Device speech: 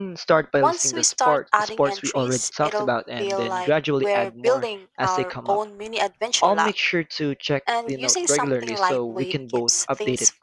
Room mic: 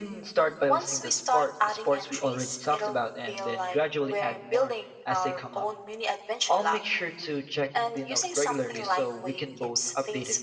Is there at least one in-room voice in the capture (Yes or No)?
No